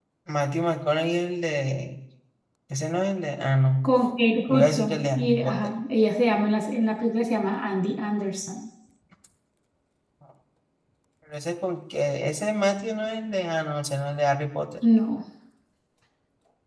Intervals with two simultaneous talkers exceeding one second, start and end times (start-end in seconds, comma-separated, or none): 4.5-5.7